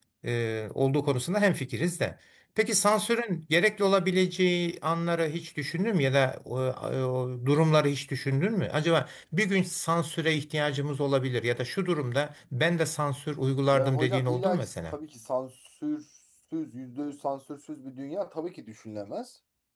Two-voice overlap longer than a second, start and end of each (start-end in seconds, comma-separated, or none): 13.7-14.9